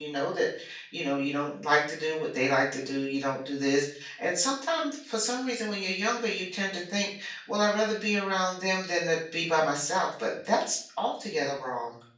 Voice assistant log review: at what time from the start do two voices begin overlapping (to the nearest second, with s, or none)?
none